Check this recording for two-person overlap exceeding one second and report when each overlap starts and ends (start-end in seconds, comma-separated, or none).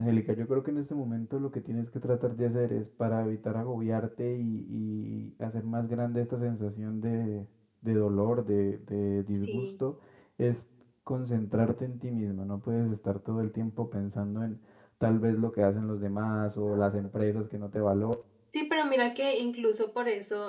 none